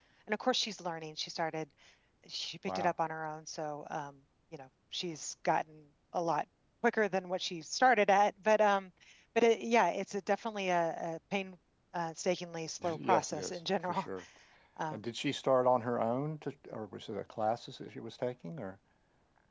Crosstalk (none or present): present